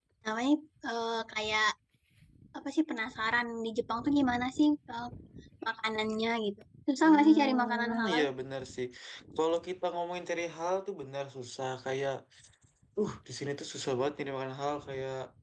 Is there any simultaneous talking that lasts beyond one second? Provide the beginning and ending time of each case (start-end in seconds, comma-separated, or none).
7.0-8.2